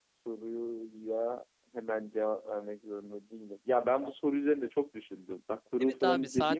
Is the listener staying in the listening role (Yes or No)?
No